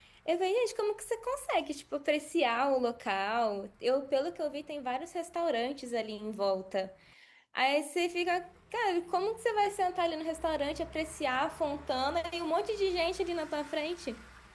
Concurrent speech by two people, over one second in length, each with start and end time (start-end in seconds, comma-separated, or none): none